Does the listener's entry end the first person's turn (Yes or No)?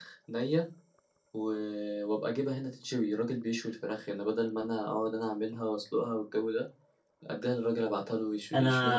Yes